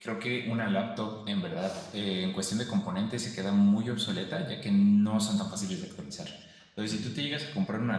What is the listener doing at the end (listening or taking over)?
listening